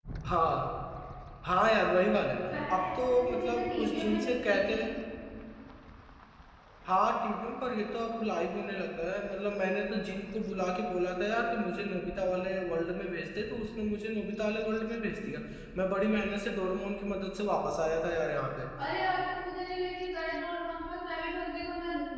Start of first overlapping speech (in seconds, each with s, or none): 2.5 s